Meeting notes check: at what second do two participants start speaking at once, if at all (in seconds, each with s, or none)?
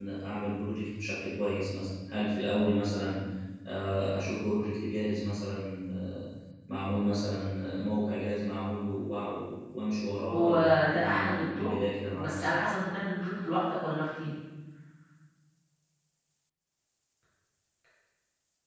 10.3 s